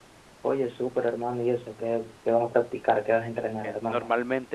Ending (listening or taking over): taking over